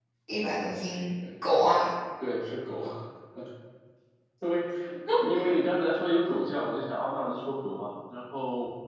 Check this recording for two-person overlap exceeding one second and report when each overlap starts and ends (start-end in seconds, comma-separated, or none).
none